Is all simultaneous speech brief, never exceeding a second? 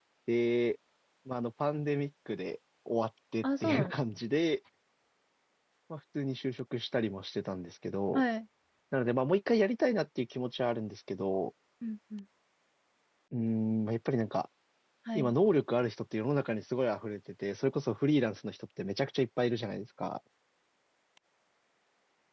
Yes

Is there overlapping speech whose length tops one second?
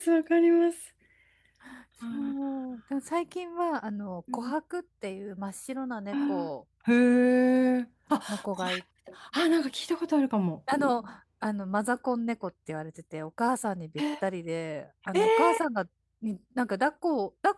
No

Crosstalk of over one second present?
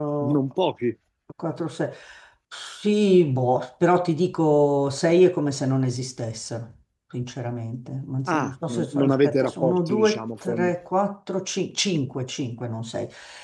Yes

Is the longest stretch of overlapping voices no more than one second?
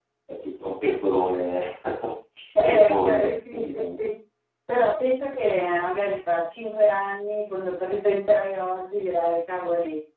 No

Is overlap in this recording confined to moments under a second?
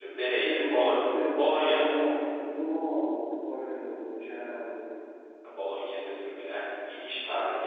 Yes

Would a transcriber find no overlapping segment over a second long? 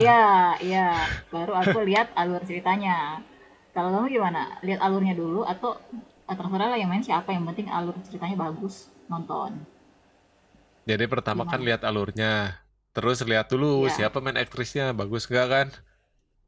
Yes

